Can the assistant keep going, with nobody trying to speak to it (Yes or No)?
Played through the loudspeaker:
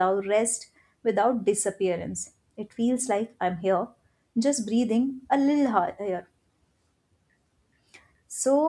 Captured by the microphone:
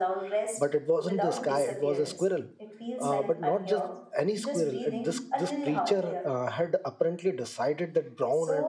No